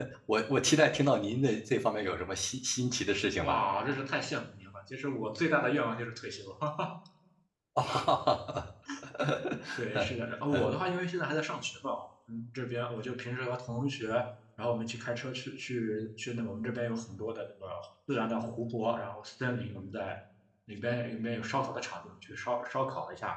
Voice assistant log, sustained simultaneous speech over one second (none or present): none